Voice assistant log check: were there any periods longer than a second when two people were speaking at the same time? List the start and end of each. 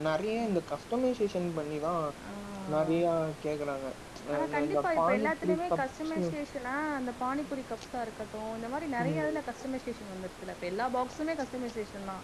4.4-6.2

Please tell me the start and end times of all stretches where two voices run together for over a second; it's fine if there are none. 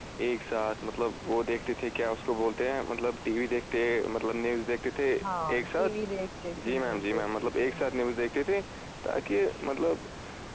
6.7-7.9

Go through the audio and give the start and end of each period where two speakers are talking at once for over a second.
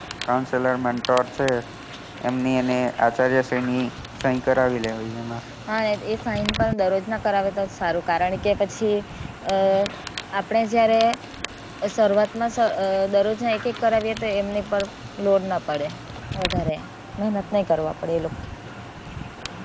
none

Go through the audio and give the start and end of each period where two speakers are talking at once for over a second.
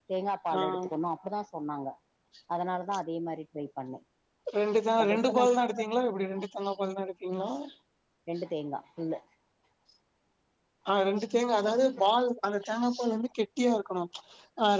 none

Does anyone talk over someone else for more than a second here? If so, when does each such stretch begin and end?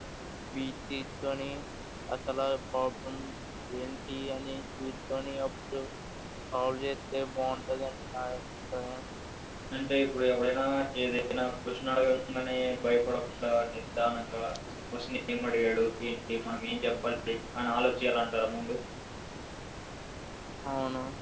none

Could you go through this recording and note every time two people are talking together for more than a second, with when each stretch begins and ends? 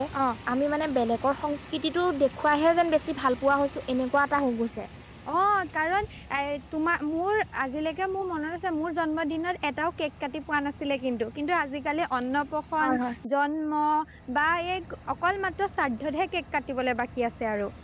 none

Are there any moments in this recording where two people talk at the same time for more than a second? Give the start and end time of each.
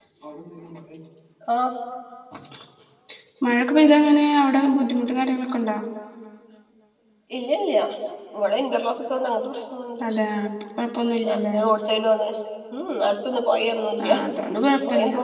none

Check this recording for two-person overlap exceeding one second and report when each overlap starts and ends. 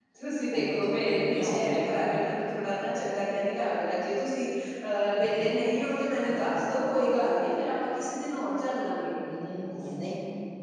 0.6-1.8

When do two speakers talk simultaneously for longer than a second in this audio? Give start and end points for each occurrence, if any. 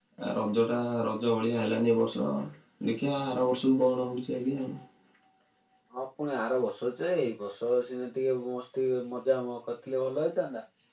none

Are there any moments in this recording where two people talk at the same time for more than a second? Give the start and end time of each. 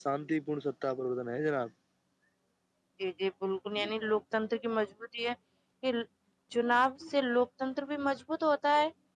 none

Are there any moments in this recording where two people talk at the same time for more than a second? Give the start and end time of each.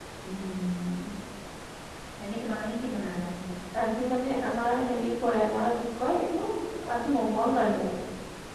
none

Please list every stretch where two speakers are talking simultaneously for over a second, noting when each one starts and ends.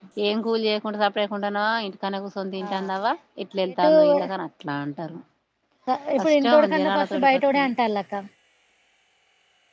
6.2-7.7

